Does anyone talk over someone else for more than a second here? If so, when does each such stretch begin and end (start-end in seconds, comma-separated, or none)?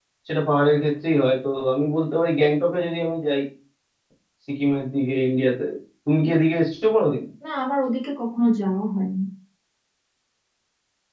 none